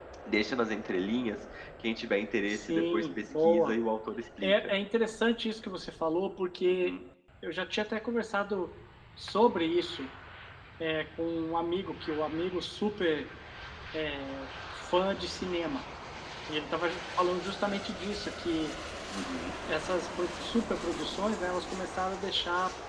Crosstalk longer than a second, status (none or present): present